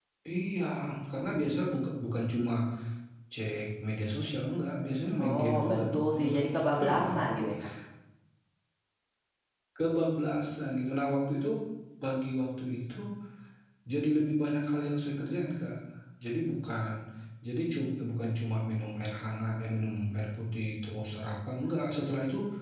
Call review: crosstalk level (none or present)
present